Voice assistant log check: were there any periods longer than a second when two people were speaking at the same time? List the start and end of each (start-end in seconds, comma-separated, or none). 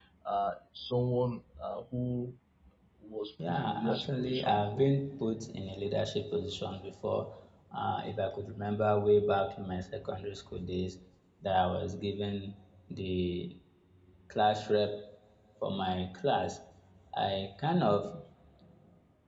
3.5-4.8